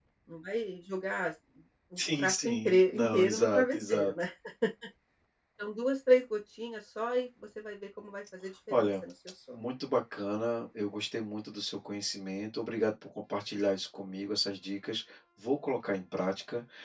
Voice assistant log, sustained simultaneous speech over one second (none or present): present